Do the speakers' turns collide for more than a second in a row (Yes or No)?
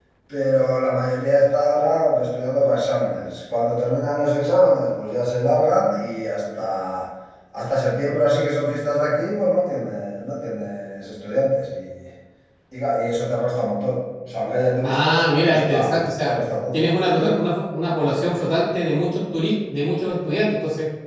Yes